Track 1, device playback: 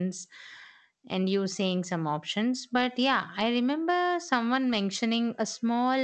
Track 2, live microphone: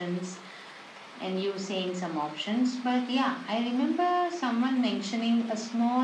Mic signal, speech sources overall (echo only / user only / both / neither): echo only